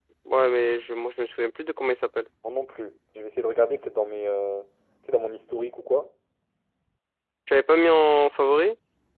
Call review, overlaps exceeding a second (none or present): none